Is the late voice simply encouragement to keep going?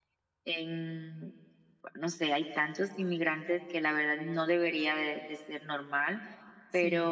Yes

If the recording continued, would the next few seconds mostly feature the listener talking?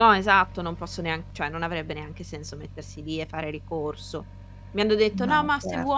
No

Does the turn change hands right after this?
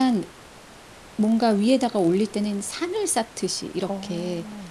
No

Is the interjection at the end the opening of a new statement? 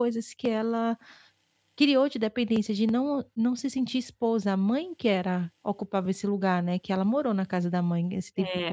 Yes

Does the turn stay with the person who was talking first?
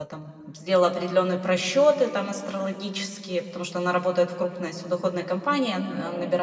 Yes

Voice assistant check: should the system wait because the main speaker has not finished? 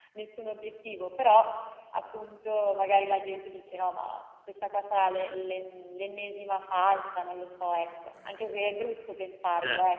No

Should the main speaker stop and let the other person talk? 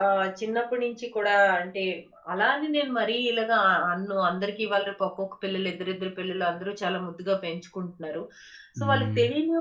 No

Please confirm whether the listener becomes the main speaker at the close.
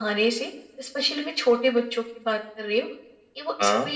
No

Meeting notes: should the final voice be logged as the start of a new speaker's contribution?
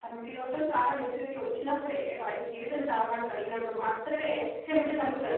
Yes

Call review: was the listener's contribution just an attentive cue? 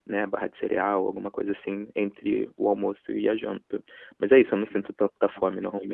No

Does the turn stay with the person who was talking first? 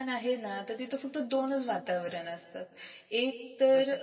Yes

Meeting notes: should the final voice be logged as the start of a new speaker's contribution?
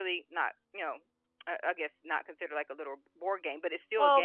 Yes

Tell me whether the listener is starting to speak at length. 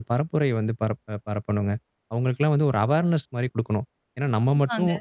No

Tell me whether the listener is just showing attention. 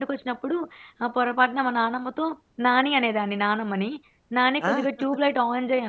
Yes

